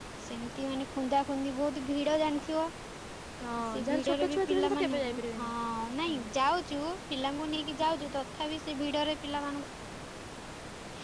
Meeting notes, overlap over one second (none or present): present